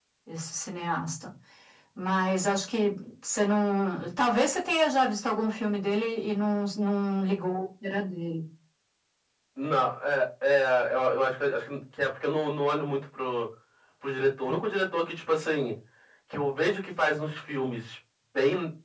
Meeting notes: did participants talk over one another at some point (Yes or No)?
No